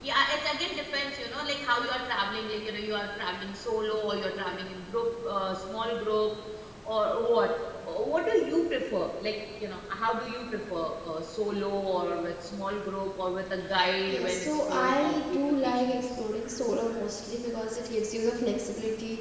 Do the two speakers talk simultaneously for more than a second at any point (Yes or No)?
Yes